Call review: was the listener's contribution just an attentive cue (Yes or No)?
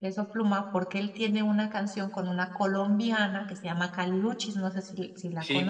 No